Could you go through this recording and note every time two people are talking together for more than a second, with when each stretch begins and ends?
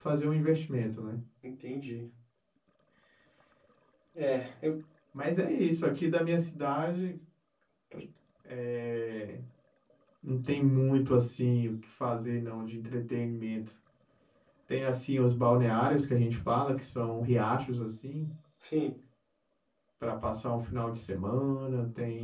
none

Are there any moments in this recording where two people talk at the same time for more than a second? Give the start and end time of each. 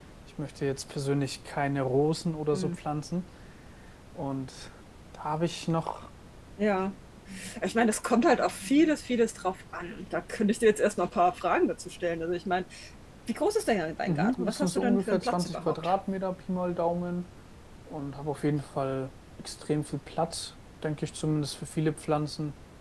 14.1-16.0

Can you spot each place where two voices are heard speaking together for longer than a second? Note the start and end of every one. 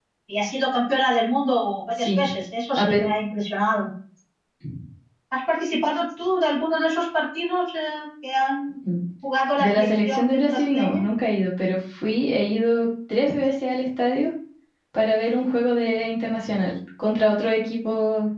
9.6-11.0

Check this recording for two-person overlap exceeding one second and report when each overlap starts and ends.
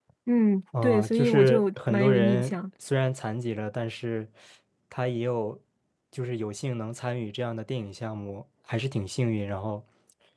0.8-2.5

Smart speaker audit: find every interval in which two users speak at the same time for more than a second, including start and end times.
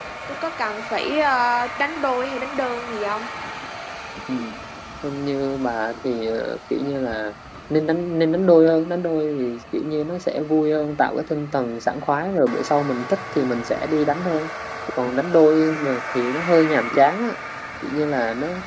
none

